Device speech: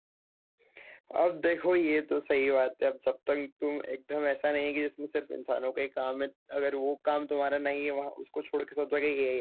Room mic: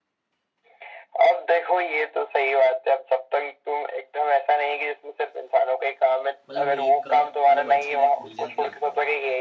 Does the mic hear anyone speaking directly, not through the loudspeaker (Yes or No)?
Yes